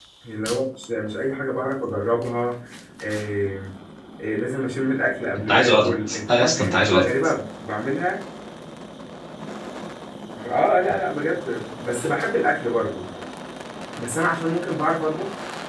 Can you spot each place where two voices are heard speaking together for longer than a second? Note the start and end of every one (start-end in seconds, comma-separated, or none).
5.5-7.1